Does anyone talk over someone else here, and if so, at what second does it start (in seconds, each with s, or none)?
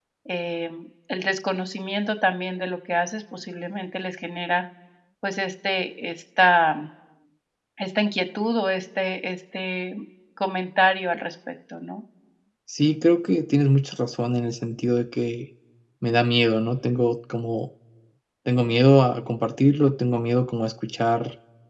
none